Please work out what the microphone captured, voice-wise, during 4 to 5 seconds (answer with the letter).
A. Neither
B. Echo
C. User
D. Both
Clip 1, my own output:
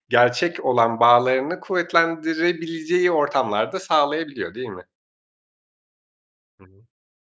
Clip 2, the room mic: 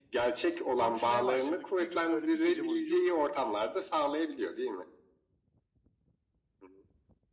B